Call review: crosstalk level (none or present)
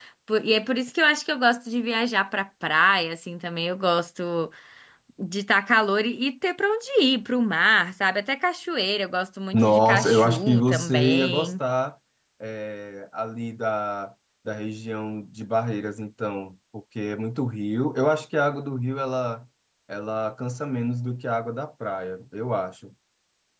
present